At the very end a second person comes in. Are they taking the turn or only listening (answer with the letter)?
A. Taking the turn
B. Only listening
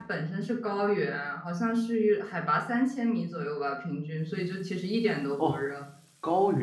A